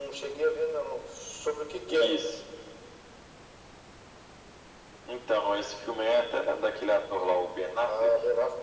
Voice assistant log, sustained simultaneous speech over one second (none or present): none